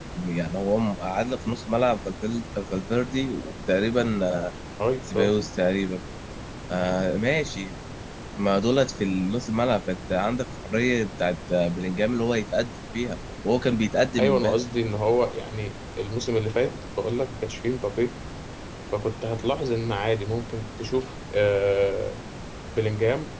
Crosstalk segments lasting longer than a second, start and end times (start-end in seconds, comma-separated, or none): none